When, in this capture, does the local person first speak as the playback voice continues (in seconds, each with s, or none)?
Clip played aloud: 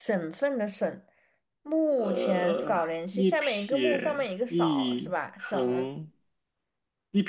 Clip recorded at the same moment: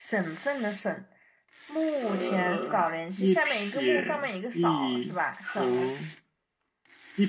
none